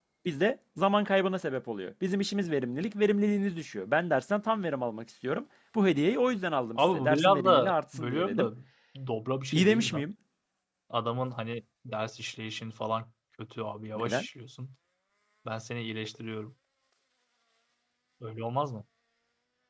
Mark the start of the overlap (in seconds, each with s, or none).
6.8 s